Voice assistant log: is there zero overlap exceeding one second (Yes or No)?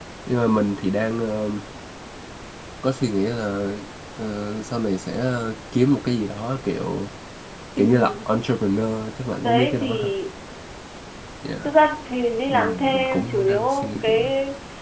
No